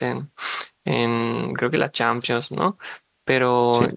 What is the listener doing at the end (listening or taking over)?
listening